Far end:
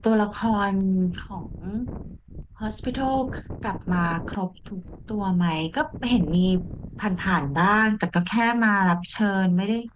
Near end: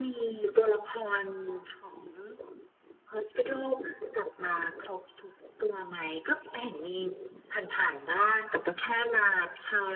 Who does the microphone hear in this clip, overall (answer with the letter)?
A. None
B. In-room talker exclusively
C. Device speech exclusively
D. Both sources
C